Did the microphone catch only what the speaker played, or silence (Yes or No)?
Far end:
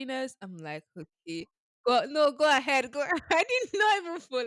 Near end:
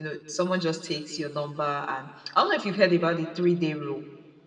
No